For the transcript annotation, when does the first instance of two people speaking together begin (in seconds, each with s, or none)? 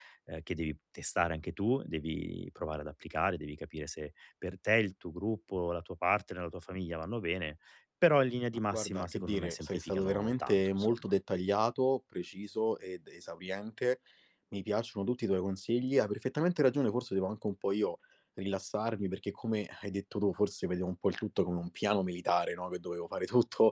8.7 s